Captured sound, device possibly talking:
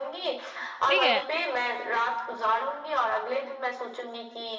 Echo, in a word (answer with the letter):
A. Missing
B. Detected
B